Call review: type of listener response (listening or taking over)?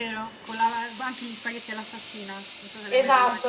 taking over